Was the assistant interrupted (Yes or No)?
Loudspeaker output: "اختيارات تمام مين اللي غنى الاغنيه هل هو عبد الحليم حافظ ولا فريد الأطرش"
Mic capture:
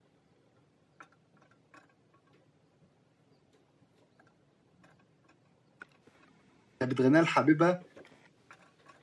Yes